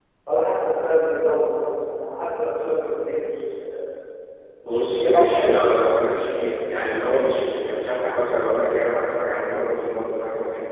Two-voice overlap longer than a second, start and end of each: 4.7-6.3

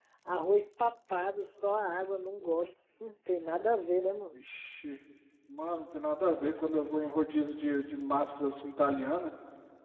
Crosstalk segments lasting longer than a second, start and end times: none

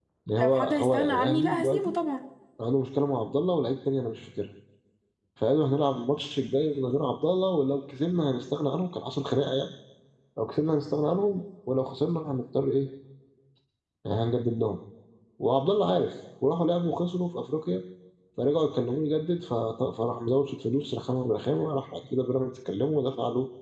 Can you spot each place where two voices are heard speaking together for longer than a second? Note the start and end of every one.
0.5-1.9

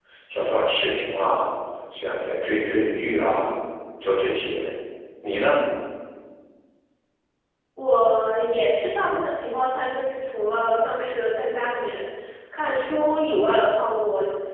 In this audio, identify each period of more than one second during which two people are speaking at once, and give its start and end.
none

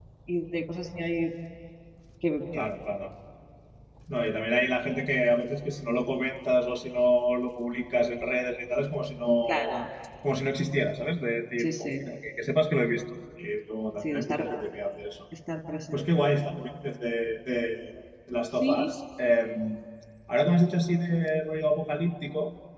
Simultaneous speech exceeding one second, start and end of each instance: none

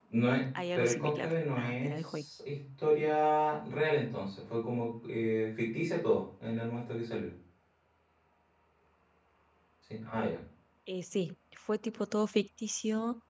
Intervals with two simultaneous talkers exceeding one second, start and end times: 0.7-2.2

